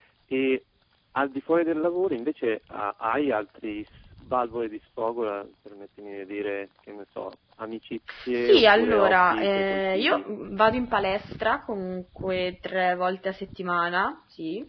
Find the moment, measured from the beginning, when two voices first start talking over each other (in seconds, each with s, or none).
8.4 s